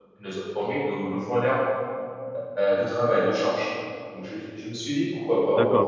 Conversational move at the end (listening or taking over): taking over